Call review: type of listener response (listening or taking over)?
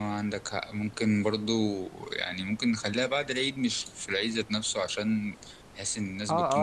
taking over